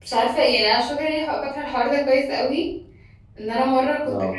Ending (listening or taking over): listening